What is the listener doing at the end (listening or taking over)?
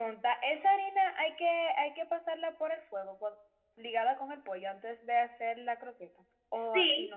taking over